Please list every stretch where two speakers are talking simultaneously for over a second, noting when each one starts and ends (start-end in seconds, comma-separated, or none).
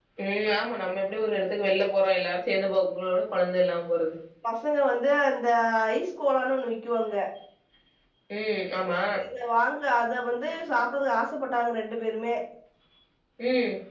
none